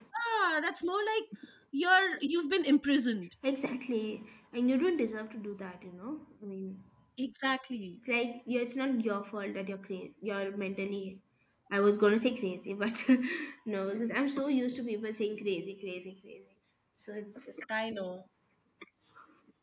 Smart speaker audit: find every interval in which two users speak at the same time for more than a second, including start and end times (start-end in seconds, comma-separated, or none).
none